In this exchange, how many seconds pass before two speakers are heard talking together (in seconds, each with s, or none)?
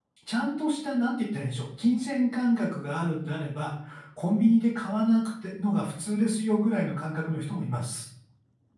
none